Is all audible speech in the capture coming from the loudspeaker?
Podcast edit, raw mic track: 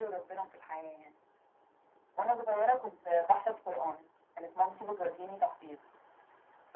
Yes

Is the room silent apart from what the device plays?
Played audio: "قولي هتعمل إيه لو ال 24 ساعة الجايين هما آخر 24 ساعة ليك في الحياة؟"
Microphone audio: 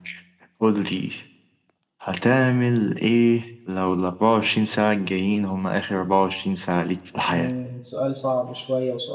No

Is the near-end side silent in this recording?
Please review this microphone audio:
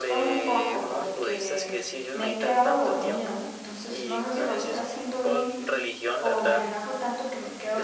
No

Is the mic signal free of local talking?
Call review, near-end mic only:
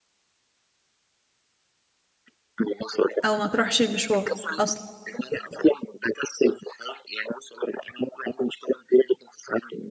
No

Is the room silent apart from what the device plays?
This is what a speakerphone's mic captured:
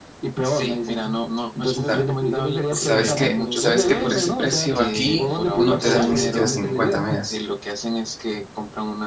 No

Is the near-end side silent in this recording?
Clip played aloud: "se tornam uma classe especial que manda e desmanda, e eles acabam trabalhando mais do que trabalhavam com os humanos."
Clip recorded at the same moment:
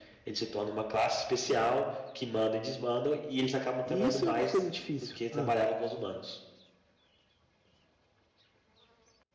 No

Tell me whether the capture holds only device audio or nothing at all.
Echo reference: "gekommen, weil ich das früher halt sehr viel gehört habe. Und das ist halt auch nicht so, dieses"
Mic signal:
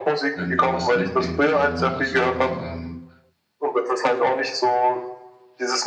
No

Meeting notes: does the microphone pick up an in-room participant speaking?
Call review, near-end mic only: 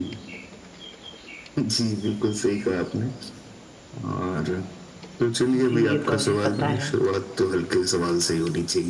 Yes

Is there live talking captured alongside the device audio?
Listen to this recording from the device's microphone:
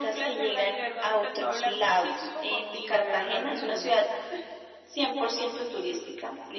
No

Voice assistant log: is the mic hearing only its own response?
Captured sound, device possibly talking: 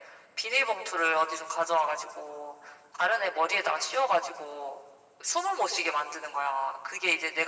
Yes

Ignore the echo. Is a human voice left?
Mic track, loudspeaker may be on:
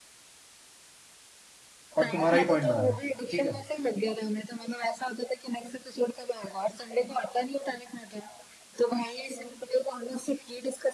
Yes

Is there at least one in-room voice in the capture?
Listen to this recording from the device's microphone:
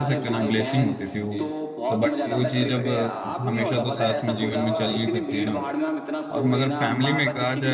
Yes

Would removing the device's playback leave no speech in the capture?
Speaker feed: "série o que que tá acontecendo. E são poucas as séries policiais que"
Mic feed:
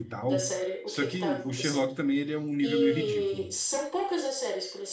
No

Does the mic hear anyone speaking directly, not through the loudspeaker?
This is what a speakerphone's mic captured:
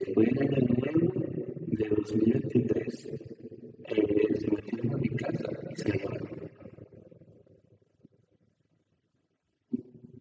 No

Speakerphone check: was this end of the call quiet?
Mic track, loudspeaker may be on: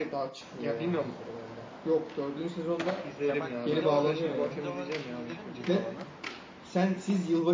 No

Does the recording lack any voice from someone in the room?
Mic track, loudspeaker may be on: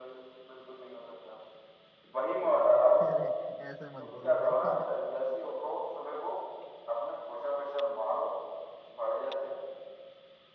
No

